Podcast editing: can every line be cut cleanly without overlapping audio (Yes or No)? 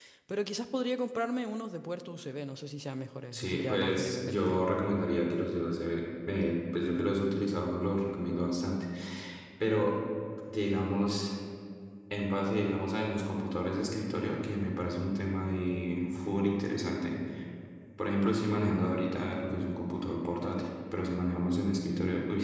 No